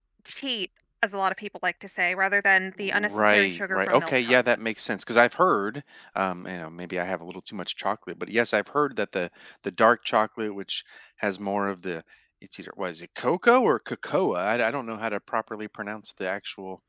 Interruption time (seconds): 2.8 s

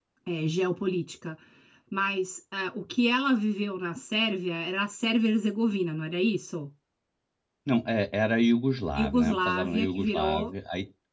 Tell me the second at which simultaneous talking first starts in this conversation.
8.9 s

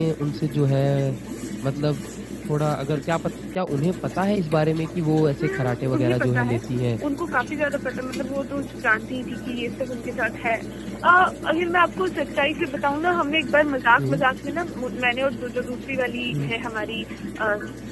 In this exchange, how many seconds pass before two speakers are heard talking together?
5.4 s

